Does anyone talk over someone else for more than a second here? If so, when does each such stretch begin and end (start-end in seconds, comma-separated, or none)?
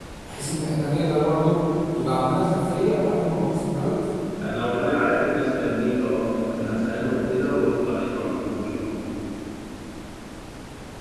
none